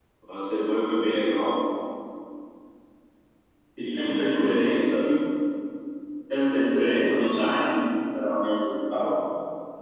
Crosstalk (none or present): present